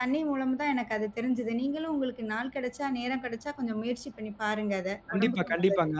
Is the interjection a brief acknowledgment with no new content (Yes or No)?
No